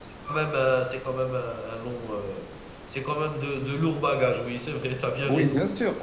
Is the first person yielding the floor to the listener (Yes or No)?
Yes